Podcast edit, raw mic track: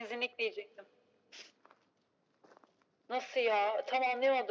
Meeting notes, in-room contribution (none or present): none